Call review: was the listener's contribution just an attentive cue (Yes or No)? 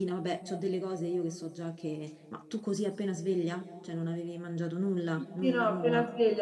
No